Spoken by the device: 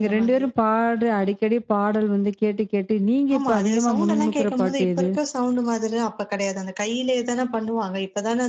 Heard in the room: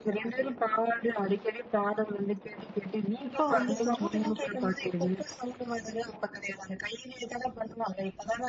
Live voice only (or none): இப்போ வந்துக்கூட